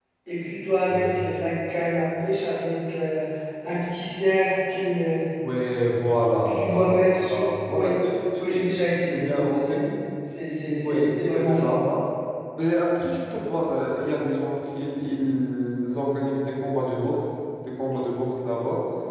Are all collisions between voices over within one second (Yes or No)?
No